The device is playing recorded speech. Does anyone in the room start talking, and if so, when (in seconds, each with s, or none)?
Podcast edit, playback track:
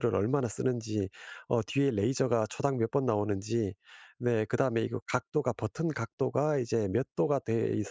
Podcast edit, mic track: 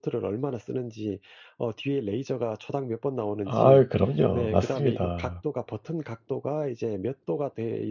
3.4 s